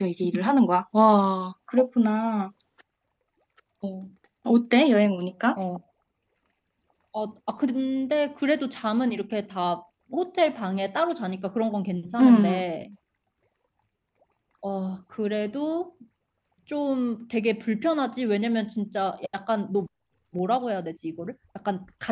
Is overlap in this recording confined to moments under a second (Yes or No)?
Yes